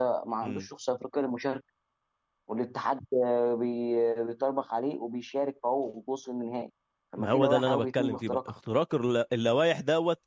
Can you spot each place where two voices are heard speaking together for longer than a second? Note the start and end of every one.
7.2-8.5

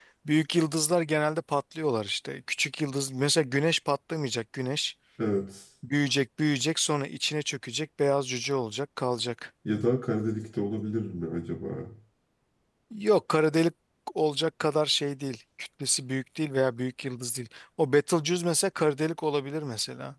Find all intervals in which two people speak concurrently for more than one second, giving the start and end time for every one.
none

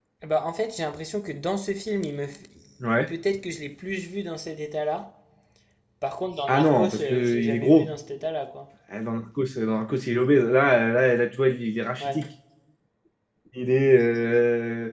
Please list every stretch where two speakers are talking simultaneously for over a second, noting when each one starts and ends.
6.5-7.9

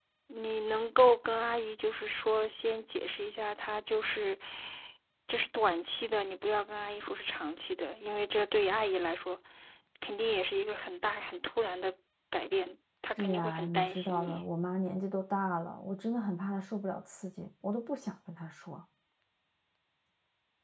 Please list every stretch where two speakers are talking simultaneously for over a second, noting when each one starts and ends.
13.1-14.4

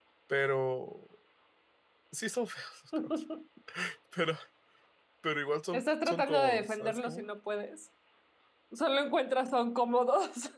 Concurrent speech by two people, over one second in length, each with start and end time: 5.7-7.3

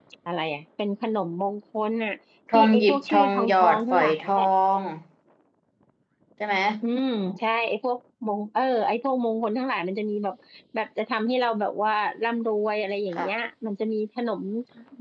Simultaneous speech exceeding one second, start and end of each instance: 2.5-4.3

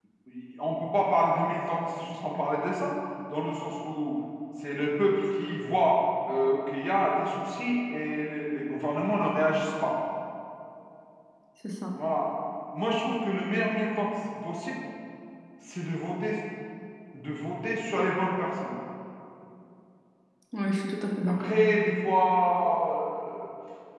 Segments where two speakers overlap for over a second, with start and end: none

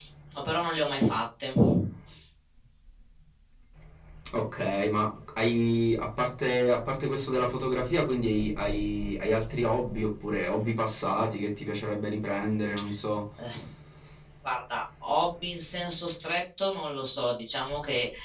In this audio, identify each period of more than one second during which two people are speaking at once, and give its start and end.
none

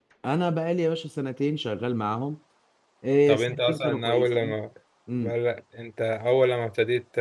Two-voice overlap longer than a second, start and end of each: 3.3-4.5

